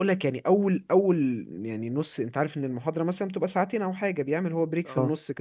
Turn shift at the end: No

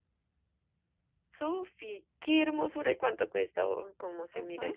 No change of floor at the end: No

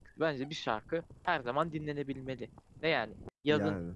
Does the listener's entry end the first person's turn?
No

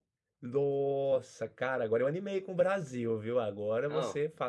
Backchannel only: Yes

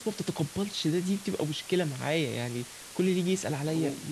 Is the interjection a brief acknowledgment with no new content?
Yes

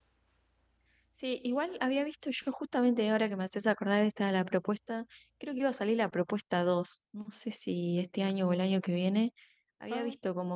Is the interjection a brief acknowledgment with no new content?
Yes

